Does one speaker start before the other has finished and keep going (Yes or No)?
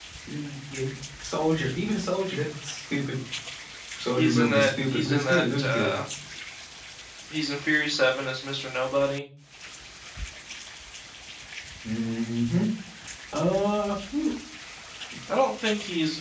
Yes